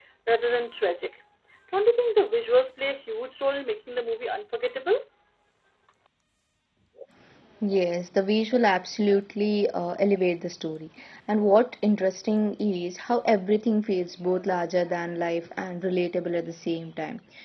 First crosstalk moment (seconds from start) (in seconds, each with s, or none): none